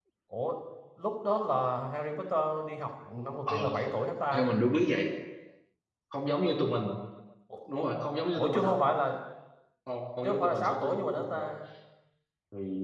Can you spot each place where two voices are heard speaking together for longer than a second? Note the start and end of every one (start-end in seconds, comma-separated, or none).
10.2-11.5